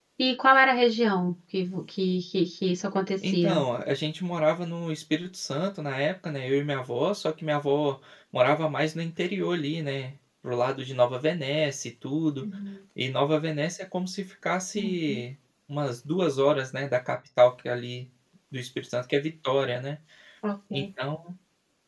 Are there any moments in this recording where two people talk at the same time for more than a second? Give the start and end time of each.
none

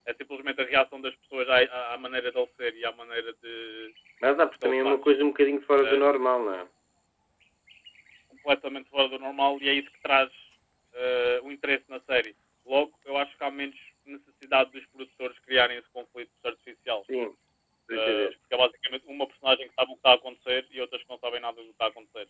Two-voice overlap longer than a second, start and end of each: none

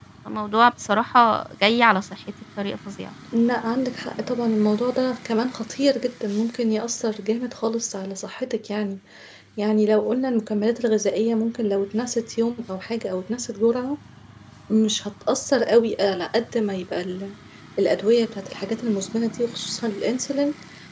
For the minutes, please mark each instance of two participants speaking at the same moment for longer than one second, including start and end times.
none

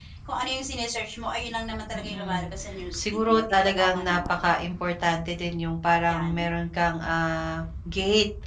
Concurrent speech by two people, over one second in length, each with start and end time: 3.0-4.4

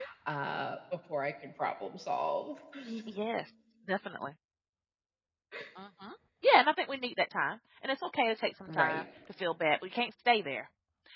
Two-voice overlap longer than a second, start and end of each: none

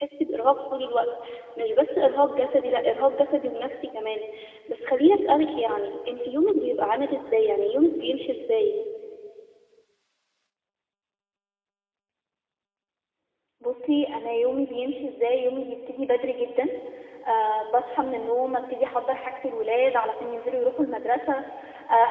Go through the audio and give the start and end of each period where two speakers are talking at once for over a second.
none

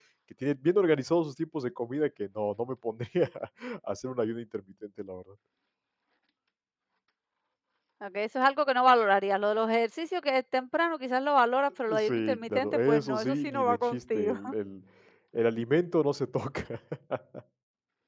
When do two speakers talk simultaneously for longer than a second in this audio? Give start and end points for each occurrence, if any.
12.0-14.3

